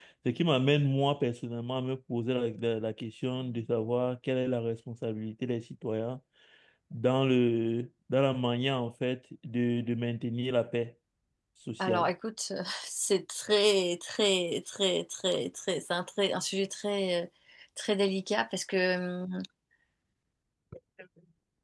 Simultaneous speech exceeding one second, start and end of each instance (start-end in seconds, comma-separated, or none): none